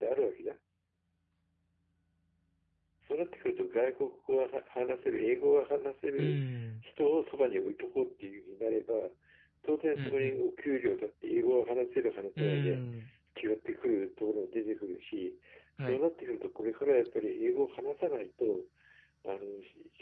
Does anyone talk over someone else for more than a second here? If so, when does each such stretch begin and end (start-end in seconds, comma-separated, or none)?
none